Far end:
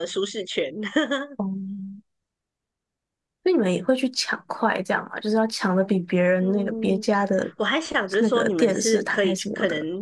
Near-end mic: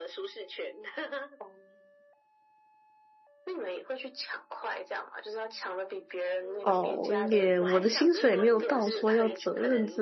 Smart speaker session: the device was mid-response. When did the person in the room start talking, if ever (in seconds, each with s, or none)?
6.6 s